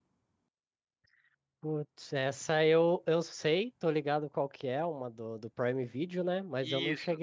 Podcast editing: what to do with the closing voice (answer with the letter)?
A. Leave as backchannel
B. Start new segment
A